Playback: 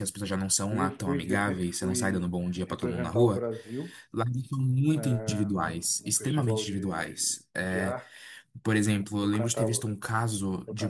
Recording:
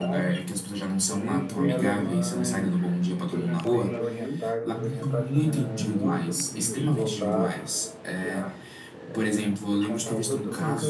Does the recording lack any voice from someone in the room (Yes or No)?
No